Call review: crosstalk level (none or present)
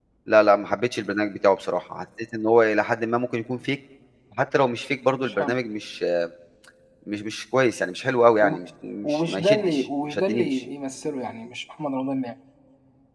present